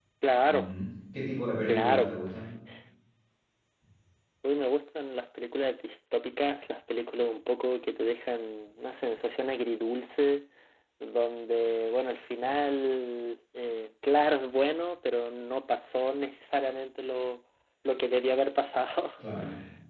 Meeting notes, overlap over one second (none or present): none